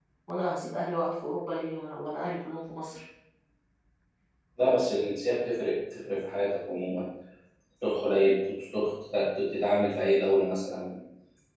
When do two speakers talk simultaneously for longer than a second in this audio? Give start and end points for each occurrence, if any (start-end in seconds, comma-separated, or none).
none